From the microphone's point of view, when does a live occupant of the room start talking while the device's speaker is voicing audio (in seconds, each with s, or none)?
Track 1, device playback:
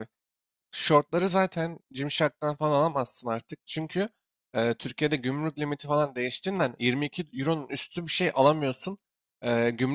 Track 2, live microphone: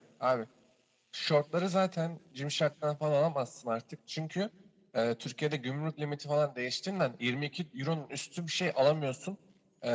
none